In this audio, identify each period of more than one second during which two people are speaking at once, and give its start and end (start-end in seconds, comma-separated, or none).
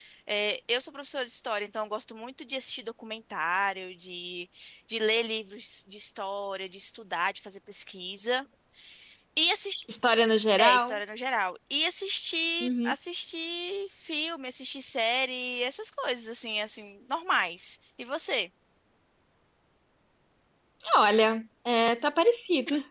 none